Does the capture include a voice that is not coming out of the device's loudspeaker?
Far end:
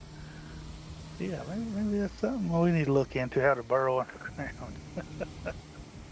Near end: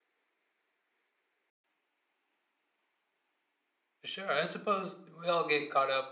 Yes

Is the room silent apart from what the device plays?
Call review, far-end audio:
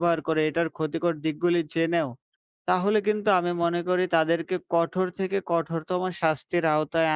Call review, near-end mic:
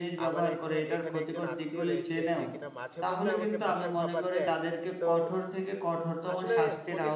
No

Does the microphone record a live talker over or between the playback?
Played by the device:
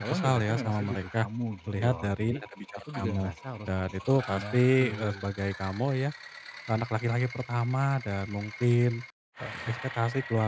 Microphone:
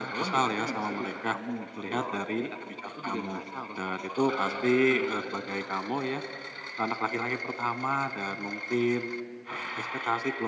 No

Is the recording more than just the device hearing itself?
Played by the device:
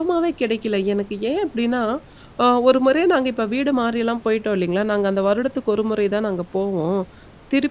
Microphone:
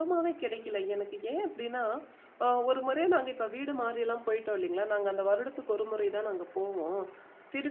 No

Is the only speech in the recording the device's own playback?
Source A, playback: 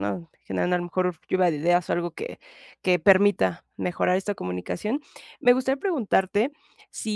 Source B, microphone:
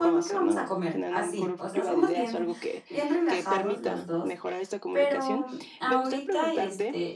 No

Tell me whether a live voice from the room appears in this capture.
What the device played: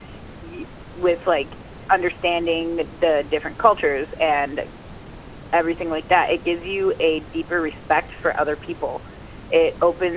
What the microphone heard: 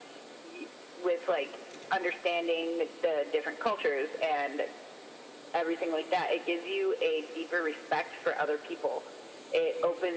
No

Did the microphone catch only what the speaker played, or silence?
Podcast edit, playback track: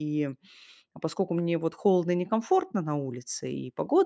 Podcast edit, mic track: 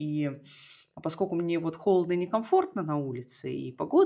Yes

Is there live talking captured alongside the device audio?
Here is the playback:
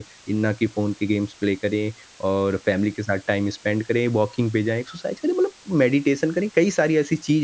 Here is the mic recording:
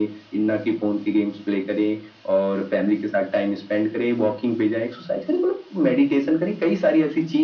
No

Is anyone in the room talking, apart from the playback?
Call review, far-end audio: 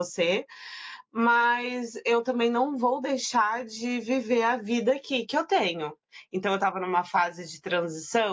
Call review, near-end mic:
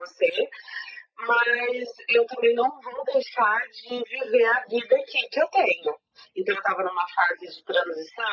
No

